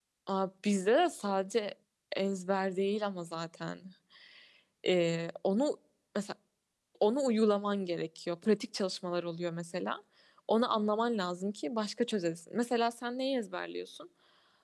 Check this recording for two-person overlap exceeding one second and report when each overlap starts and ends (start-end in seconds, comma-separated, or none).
none